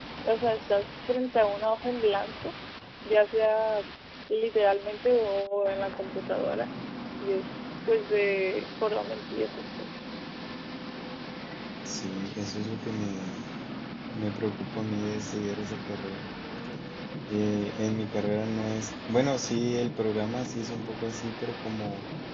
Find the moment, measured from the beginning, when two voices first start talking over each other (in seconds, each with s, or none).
none